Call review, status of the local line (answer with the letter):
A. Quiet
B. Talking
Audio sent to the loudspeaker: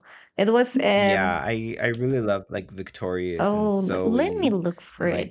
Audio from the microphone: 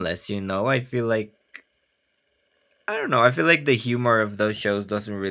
B